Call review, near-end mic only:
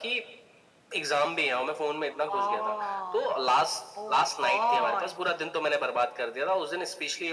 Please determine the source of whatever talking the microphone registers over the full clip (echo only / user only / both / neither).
echo only